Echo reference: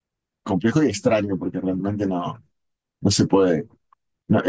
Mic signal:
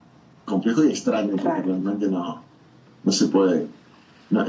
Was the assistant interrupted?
Yes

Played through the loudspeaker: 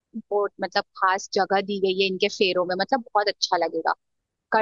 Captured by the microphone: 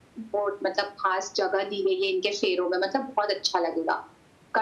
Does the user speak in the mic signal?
No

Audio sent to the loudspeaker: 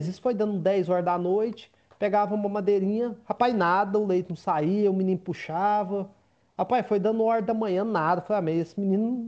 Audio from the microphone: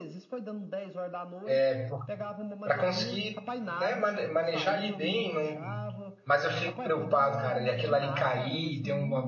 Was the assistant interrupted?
Yes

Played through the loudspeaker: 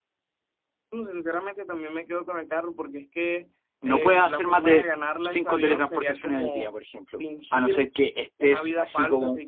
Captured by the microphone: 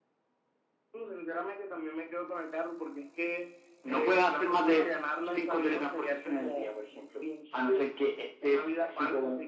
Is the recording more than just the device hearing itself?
No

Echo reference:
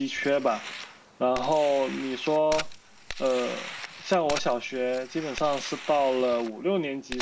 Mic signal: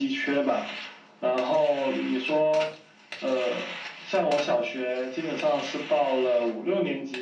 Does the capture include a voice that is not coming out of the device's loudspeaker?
No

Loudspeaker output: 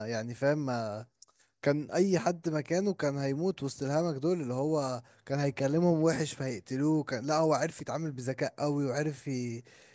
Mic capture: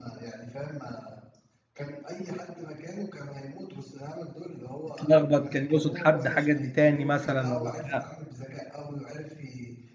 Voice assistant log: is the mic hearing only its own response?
No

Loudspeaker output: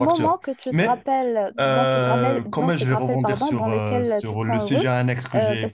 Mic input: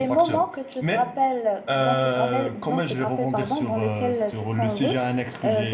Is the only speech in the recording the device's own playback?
Yes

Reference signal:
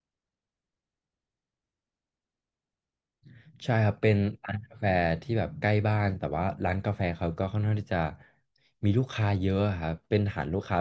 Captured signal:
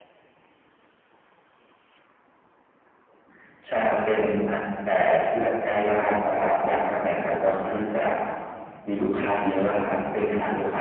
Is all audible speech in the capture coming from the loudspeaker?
Yes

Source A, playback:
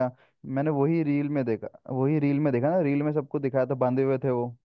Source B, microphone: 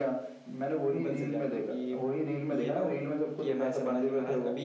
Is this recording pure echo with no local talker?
No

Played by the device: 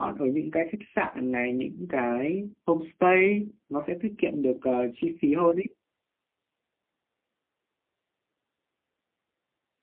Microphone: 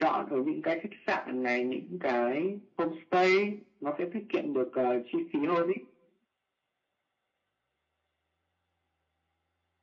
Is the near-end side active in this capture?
No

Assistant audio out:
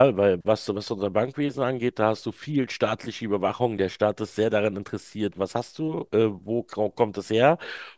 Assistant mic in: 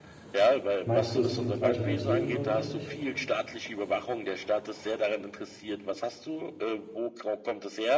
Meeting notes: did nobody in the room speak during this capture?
No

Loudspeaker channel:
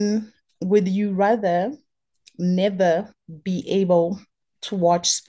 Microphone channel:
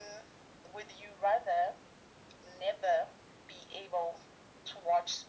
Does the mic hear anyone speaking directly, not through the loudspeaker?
No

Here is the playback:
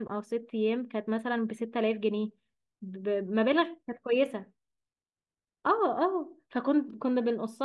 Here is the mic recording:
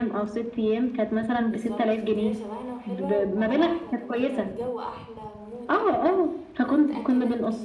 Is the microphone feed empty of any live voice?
No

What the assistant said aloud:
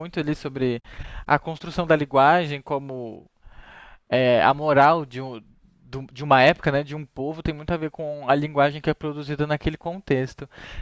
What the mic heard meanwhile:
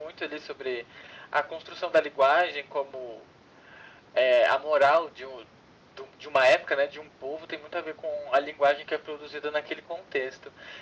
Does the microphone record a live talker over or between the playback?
No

